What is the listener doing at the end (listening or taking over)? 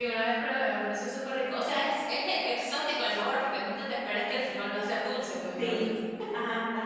taking over